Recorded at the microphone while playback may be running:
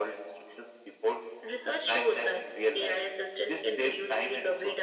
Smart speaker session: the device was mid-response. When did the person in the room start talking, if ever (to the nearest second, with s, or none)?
none